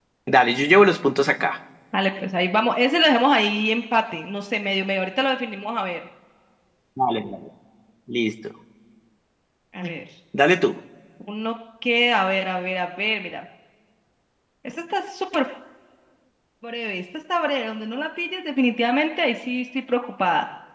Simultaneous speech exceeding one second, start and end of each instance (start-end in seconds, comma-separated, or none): none